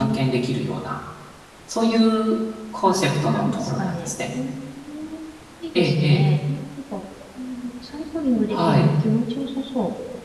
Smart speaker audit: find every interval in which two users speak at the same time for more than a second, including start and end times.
2.9-4.3

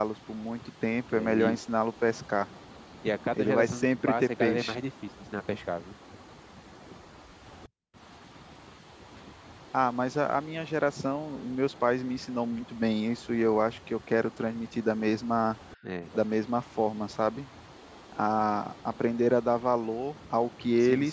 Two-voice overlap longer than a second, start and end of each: 3.3-4.8

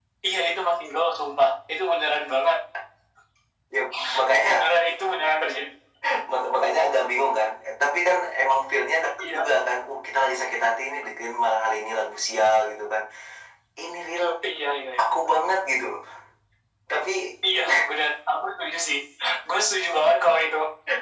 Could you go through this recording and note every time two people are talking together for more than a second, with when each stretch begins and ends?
none

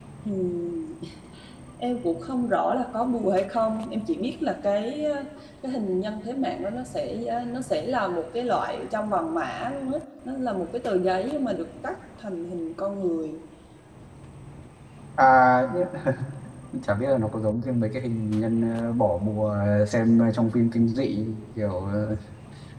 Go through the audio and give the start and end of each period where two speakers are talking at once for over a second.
none

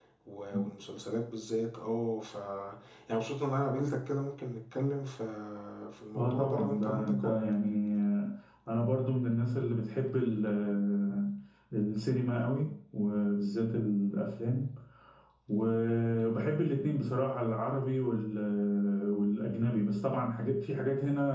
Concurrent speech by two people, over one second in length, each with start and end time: 6.2-7.4

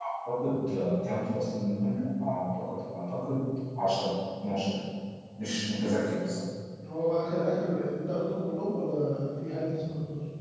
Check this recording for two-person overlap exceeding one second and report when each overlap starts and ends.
none

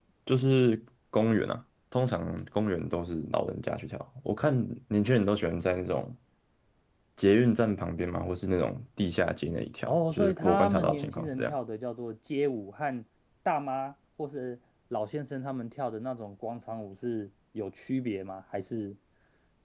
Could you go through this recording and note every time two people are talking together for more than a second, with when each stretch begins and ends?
9.9-11.6

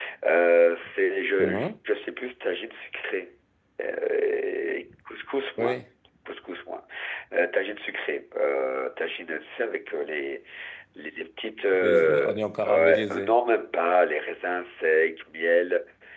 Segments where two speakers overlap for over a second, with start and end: 11.8-13.3

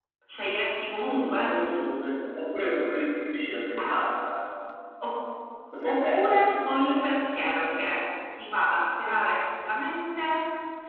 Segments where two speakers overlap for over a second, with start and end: 5.8-7.2

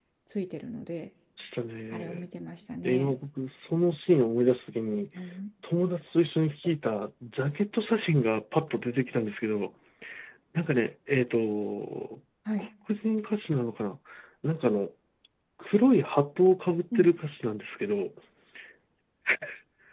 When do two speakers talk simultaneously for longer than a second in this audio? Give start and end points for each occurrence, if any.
none

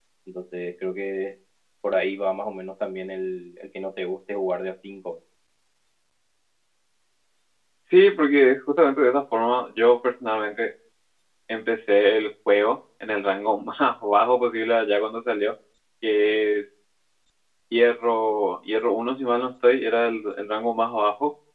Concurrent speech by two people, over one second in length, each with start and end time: none

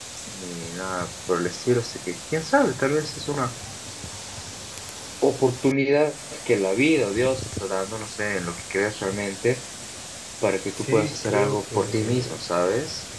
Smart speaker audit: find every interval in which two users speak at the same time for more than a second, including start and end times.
10.8-12.4

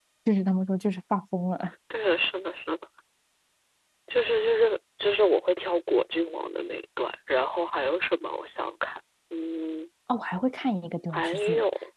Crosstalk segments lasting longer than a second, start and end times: none

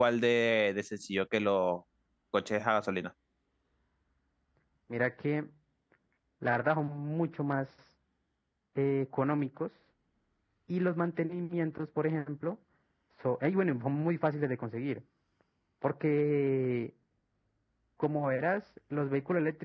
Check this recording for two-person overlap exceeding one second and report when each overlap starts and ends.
none

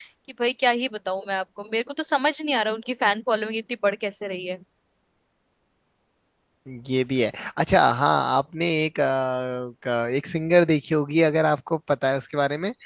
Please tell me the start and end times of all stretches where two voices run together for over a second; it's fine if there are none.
none

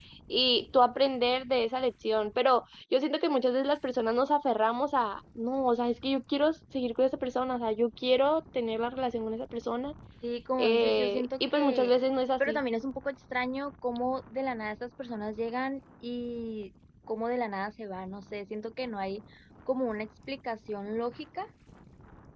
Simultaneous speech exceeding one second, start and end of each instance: 10.6-11.9

